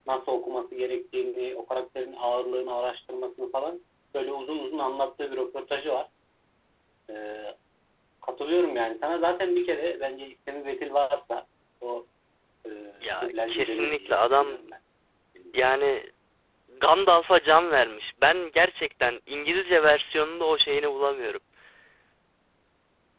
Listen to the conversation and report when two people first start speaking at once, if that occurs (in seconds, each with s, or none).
13.2 s